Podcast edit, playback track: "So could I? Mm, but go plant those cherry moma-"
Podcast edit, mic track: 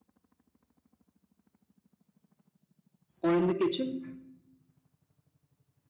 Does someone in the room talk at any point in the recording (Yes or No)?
Yes